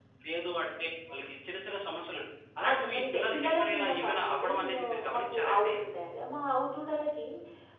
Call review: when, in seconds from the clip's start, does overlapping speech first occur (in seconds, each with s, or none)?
2.8 s